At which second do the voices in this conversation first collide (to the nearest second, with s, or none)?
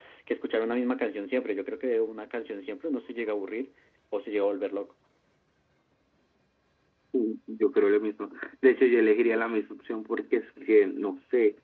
none